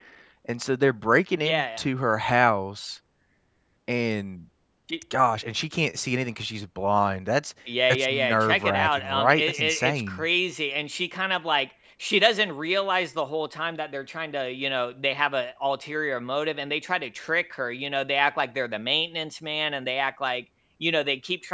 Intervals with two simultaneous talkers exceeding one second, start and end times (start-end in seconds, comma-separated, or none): 7.9-10.2